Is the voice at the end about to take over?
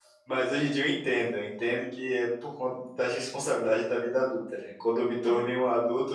No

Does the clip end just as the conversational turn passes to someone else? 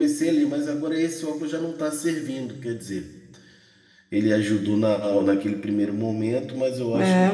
Yes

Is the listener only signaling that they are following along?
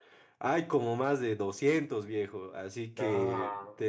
Yes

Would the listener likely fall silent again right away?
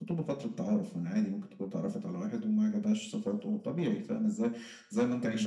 Yes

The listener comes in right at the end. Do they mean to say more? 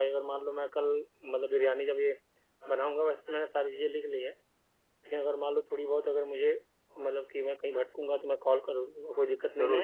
Yes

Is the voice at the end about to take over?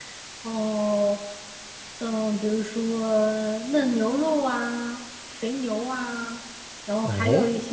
No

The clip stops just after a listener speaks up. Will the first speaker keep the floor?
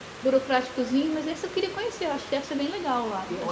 No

